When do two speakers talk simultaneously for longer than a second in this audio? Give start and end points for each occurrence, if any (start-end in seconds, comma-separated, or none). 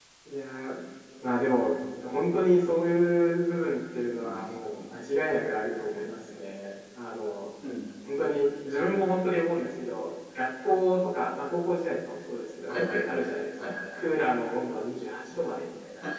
12.7-14.0